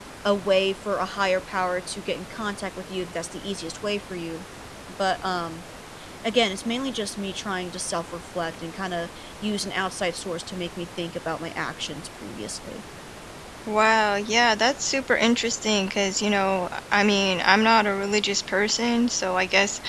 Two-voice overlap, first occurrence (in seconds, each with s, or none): none